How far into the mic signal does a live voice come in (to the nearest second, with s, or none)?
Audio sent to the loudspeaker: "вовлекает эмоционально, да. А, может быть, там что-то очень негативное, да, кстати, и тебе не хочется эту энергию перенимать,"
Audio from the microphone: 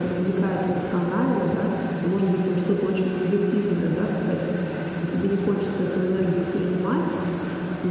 none